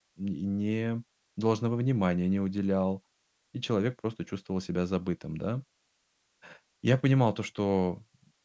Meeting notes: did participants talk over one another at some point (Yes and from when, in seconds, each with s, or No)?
No